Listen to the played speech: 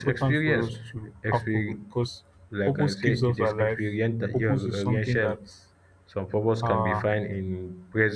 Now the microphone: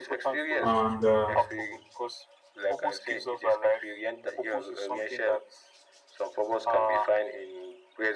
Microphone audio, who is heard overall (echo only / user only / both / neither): both